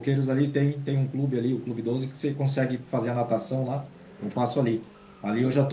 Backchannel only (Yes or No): Yes